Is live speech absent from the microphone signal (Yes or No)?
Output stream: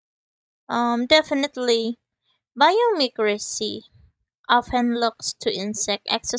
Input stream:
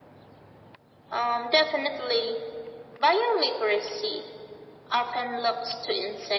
Yes